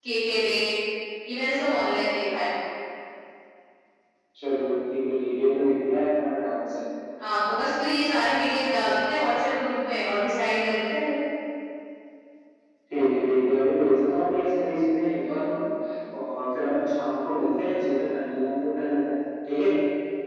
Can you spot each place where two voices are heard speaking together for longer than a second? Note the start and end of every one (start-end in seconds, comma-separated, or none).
none